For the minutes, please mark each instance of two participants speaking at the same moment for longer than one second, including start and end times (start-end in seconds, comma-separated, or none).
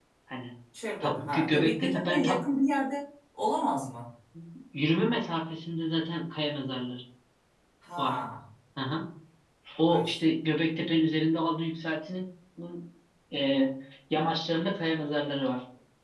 1.0-2.4